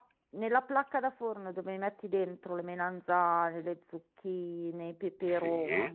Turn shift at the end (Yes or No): No